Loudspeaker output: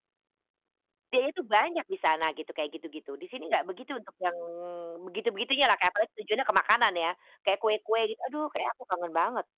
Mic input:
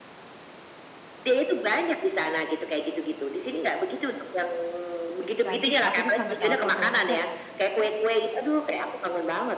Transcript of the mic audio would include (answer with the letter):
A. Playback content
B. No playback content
A